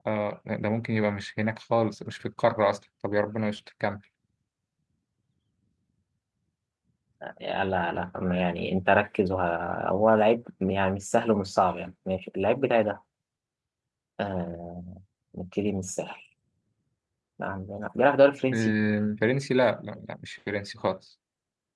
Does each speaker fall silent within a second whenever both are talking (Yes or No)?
Yes